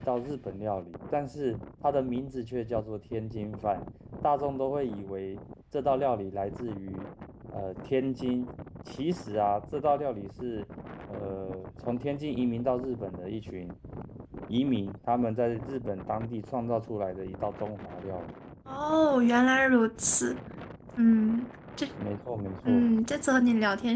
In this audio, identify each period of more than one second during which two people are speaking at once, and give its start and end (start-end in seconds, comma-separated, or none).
none